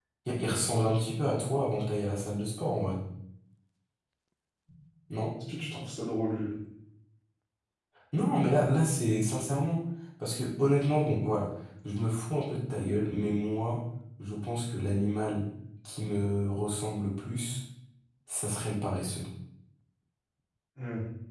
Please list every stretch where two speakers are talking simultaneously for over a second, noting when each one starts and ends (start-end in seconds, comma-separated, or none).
none